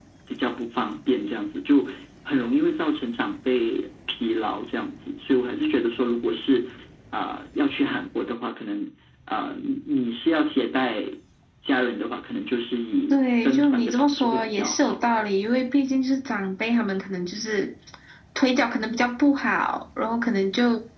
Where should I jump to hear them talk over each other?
13.1 s

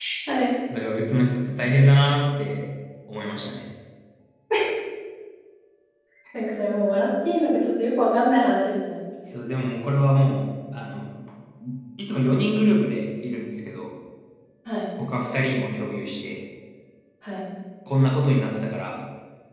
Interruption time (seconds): none

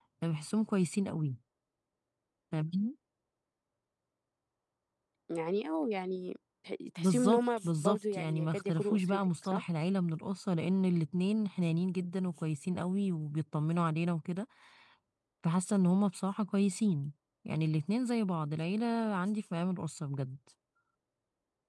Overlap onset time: 7.0 s

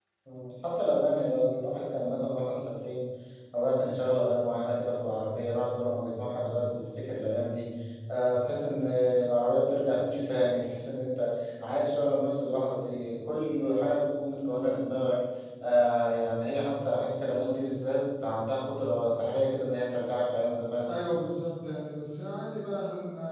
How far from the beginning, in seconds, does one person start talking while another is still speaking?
none

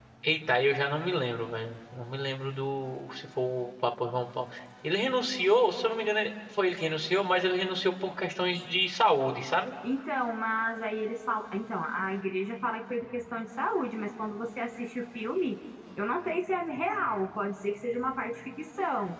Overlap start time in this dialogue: none

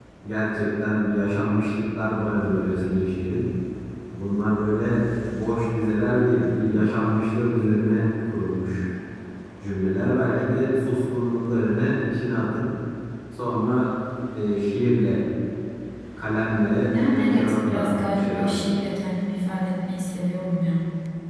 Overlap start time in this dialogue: 16.9 s

